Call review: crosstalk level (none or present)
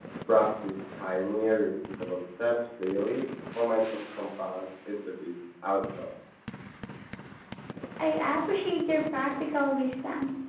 none